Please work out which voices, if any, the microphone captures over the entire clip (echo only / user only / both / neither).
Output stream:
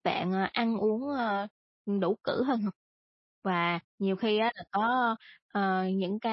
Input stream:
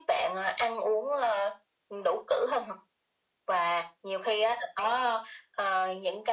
echo only